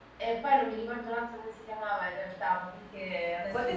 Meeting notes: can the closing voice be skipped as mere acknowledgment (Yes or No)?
No